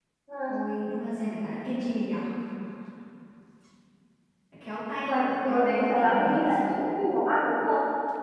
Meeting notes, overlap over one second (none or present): present